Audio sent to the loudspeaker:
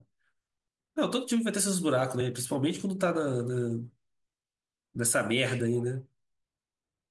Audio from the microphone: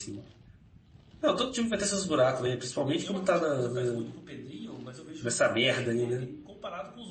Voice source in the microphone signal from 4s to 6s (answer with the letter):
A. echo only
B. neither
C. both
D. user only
C